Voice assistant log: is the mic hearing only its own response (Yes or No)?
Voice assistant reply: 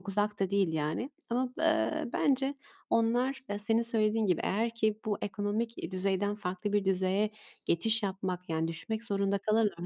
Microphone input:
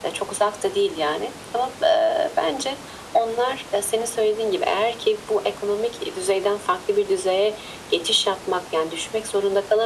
Yes